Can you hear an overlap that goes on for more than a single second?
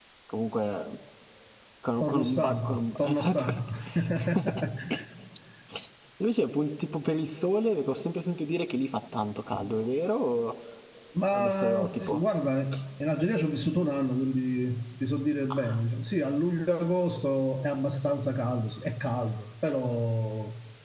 Yes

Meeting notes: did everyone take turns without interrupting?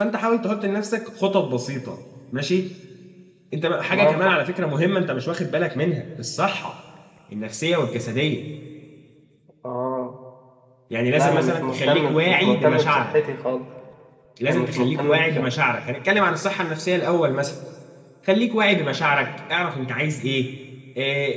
No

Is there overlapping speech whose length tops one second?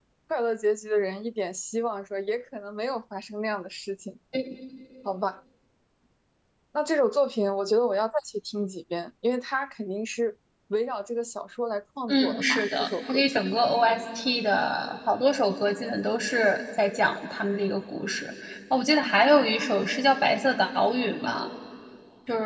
Yes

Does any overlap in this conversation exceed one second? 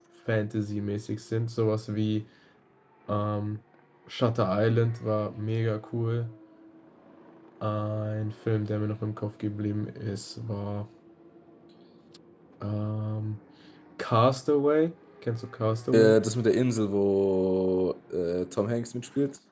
No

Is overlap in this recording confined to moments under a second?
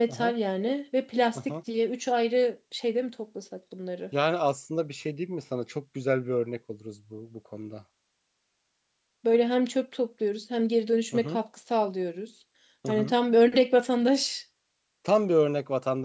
Yes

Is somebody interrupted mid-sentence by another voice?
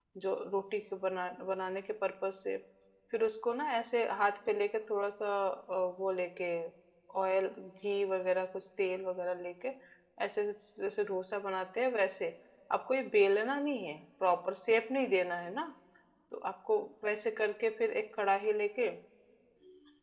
No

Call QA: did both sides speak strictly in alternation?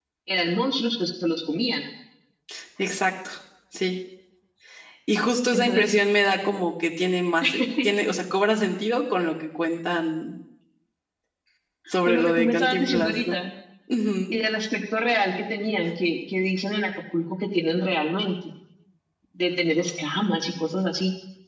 No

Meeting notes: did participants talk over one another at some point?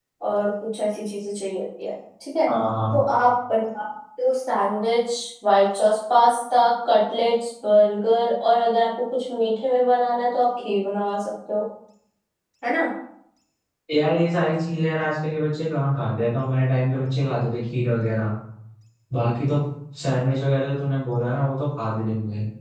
No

